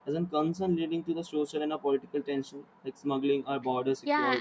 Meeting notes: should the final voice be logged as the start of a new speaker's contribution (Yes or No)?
Yes